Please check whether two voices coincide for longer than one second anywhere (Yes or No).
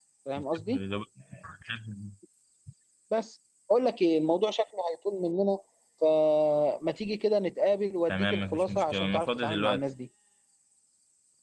Yes